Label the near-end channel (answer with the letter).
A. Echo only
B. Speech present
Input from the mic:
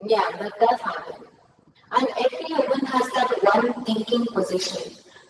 A